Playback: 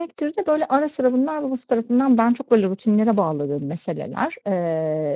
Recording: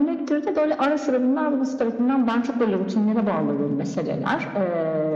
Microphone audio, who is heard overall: echo only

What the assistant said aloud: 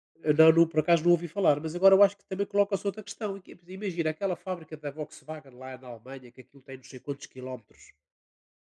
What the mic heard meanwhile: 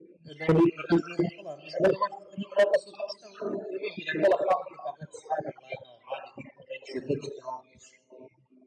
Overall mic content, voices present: echo only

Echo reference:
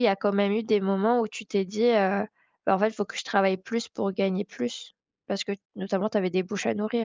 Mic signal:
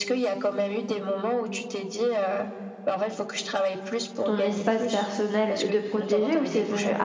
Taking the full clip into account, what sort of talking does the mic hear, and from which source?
both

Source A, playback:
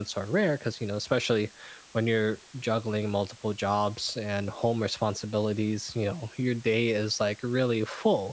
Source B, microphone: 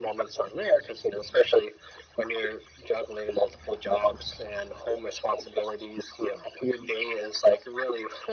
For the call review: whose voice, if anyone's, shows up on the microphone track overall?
echo only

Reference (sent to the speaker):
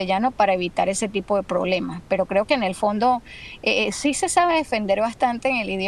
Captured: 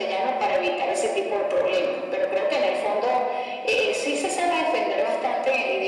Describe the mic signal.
echo only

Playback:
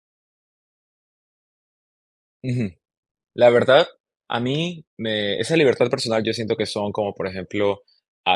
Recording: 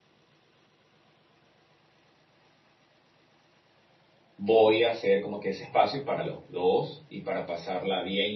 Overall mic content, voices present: user only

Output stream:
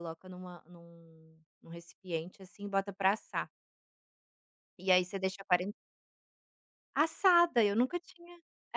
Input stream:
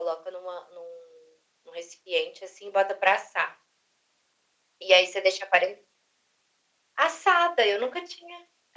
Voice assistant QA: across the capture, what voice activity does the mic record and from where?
echo only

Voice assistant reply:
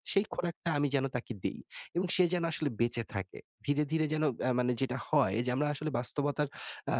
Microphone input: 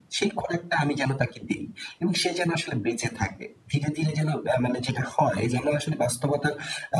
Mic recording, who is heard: echo only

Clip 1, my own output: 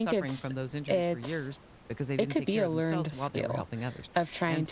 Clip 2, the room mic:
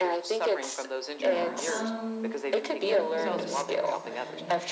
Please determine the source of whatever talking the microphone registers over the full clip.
both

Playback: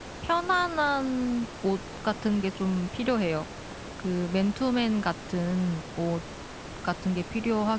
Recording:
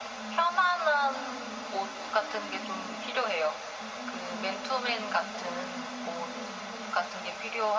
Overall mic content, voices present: both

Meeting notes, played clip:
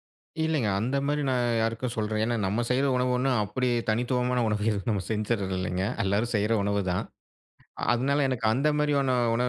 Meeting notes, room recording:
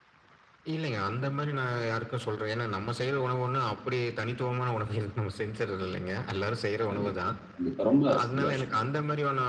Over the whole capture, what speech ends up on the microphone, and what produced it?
both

